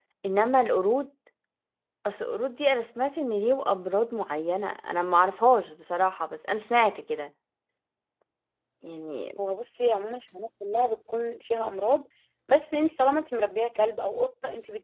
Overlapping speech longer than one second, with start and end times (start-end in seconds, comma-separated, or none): none